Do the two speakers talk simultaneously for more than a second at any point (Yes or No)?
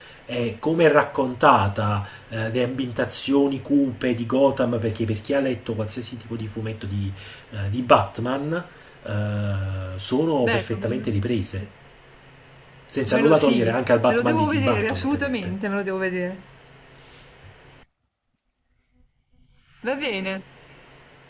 Yes